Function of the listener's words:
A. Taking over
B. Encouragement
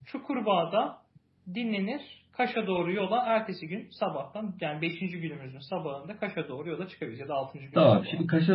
A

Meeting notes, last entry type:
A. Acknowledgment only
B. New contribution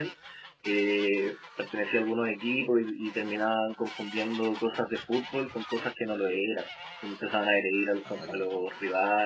A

